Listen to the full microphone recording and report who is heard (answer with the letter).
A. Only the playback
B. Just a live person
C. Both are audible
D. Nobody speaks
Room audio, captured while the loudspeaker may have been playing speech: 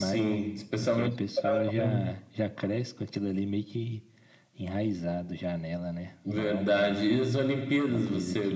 A